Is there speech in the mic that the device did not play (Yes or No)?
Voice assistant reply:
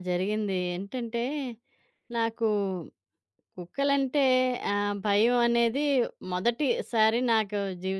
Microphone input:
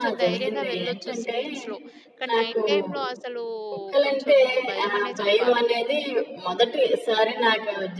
Yes